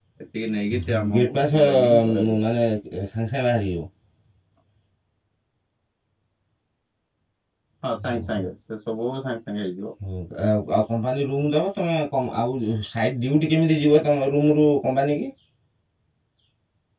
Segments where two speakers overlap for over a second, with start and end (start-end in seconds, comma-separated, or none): 0.9-2.4